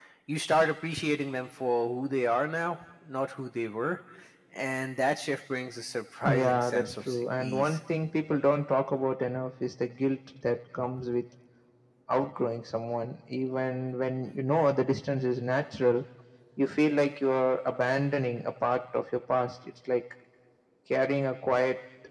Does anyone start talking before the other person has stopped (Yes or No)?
Yes